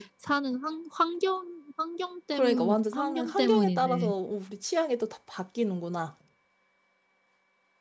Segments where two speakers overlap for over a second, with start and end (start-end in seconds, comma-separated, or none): 2.3-4.1